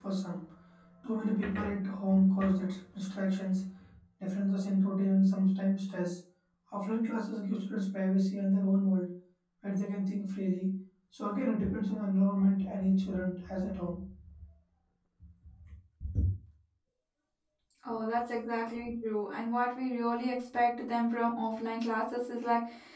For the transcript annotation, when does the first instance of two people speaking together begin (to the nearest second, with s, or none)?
none